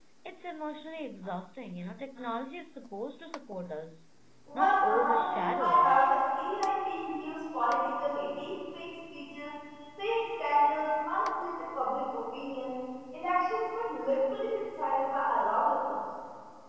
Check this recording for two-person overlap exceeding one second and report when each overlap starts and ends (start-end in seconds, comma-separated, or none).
4.5-6.1